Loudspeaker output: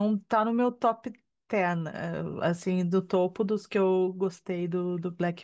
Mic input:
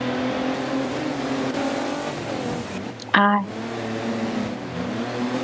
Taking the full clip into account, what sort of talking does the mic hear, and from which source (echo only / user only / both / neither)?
user only